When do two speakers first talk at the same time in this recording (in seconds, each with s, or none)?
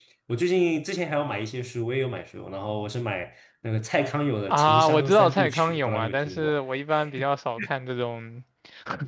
4.5 s